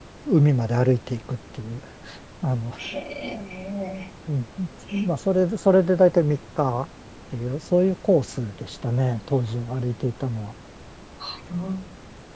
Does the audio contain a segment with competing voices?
No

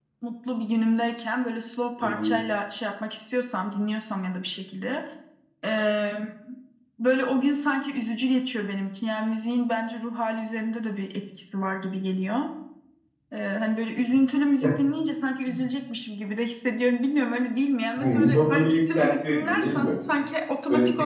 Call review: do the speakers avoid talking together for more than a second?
No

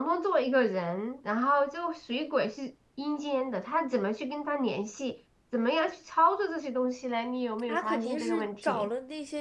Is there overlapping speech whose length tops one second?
Yes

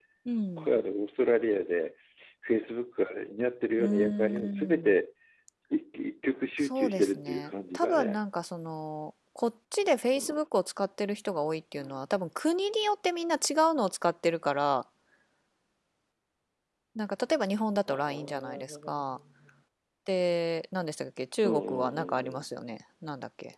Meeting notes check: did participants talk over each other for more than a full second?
Yes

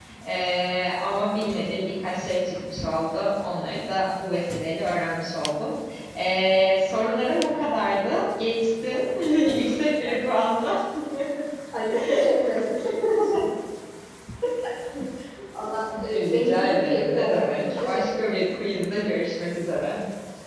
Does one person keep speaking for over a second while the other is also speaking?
Yes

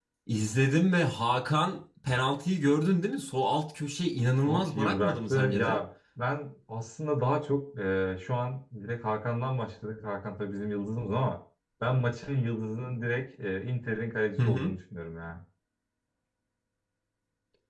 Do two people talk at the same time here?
Yes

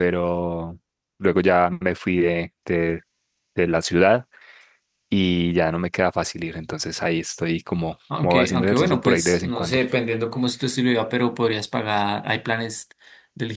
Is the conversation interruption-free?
No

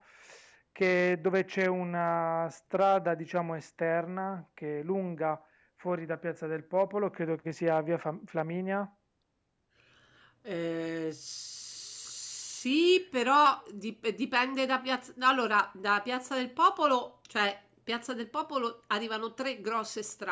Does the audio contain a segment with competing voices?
No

